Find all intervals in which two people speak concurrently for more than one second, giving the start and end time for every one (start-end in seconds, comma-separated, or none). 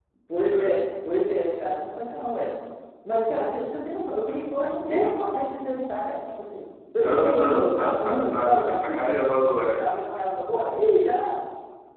7.0-9.0